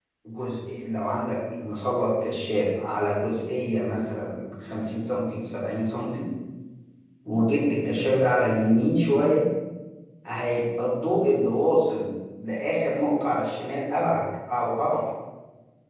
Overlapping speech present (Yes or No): No